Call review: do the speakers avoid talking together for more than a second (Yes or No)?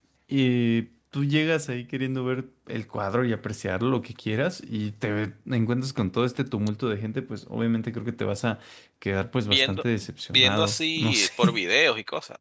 No